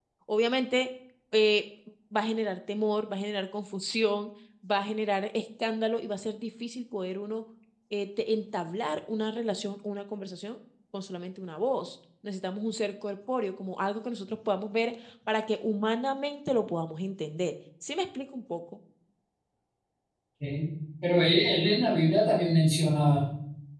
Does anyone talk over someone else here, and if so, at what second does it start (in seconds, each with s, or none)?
none